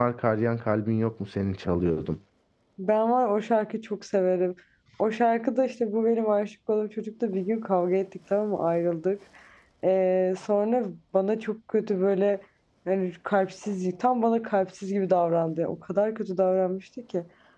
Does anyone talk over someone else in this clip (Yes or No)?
No